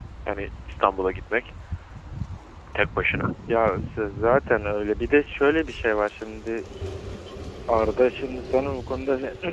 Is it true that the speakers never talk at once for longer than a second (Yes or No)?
Yes